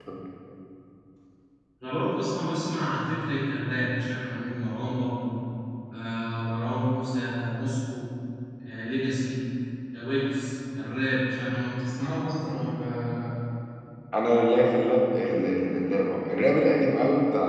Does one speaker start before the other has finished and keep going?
No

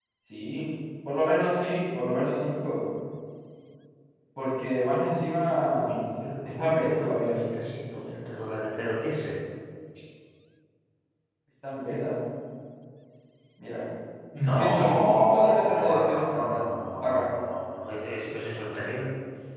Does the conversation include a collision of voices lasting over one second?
Yes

